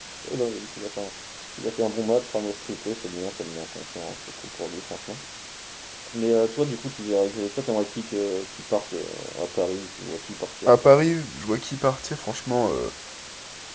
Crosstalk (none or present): none